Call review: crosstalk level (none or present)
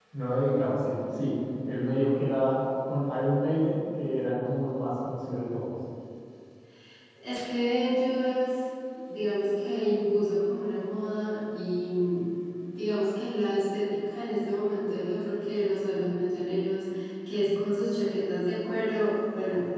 none